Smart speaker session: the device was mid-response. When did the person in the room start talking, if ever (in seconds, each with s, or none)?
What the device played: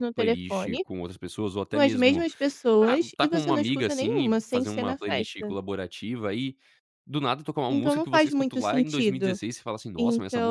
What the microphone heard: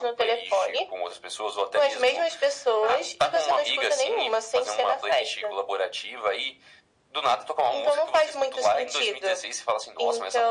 none